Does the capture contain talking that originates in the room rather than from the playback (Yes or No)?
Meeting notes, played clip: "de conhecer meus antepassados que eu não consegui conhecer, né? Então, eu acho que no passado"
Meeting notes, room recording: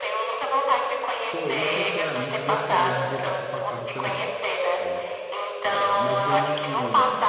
Yes